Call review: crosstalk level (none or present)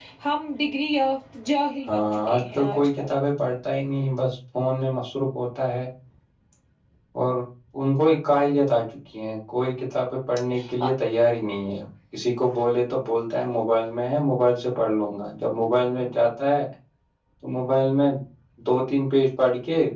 present